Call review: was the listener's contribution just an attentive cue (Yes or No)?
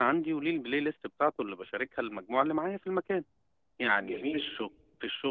Yes